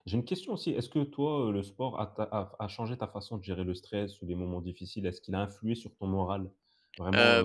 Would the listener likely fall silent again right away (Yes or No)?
No